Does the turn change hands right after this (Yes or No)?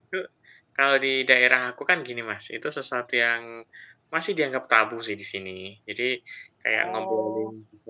No